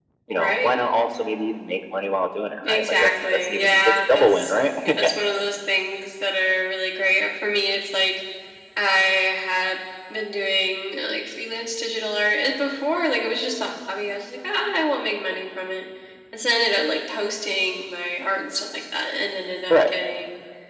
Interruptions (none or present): present